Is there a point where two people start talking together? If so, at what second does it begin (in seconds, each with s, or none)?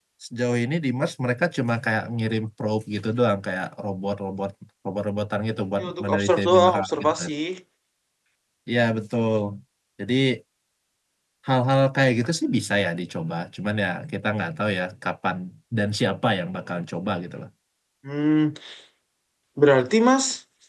5.8 s